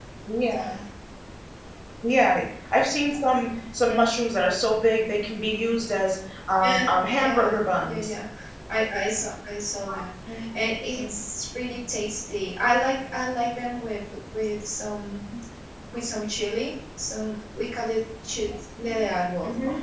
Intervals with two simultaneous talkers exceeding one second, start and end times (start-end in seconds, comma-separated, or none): 6.6-8.1